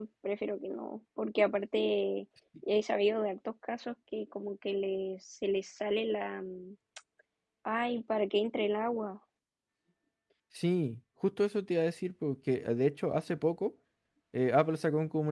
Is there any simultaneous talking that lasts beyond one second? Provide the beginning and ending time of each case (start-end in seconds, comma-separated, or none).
none